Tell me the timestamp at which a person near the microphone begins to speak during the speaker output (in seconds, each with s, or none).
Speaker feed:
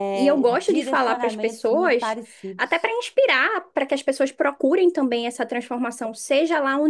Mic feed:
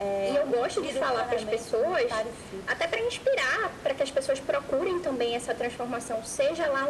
none